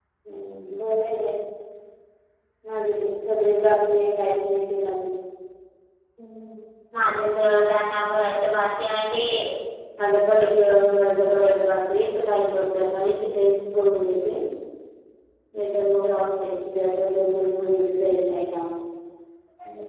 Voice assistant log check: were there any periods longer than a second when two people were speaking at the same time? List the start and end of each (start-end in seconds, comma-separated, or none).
none